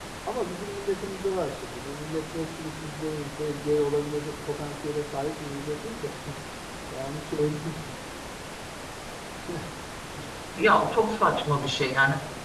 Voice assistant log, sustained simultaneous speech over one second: none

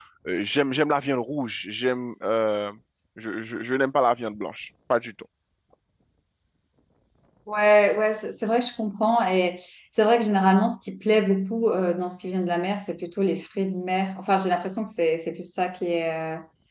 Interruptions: none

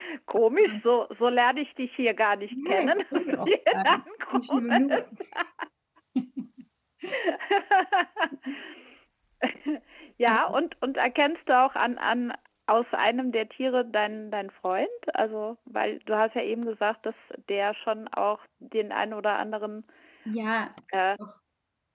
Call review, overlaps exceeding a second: present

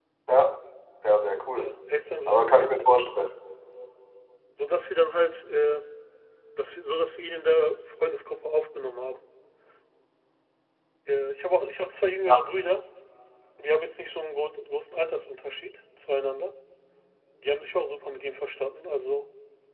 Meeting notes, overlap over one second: none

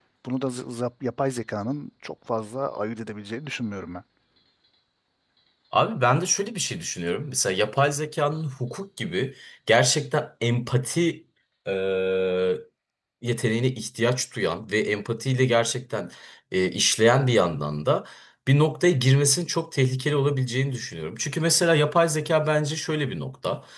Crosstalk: none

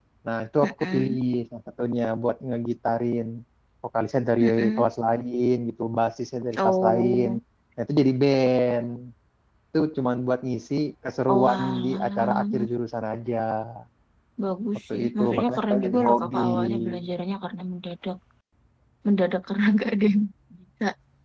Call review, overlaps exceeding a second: present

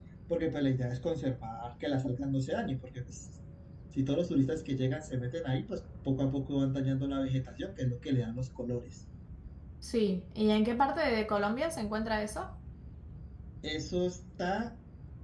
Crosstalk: none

